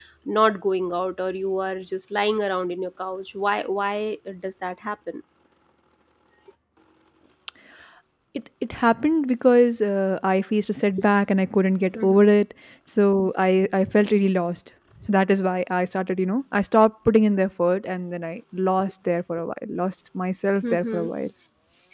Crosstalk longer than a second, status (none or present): none